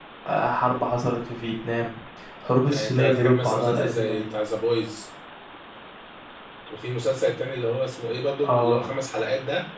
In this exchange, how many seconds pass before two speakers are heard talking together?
3 s

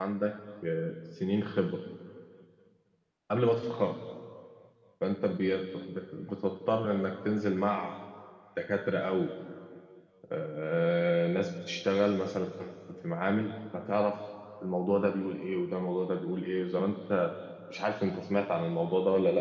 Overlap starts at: none

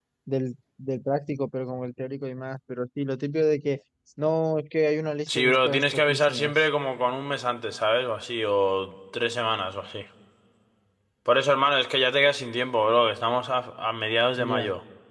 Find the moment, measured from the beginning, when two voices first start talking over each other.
5 s

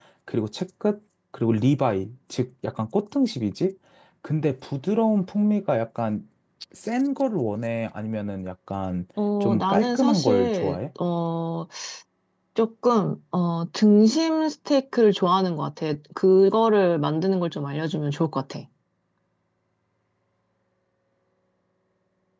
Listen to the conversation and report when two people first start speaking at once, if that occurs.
9 s

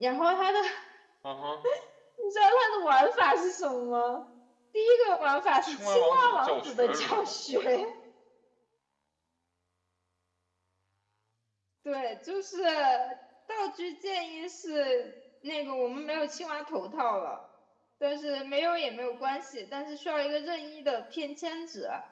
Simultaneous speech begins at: 6 s

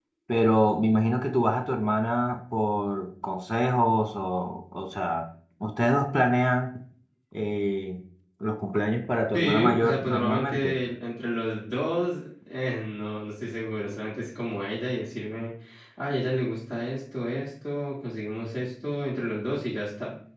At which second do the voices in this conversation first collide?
9 s

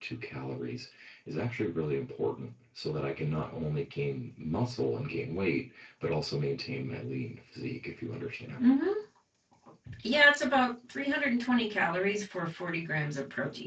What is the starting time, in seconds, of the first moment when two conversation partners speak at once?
none

